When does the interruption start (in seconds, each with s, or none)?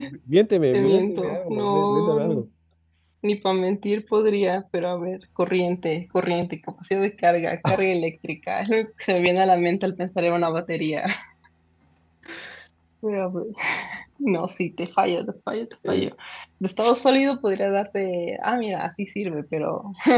0.7 s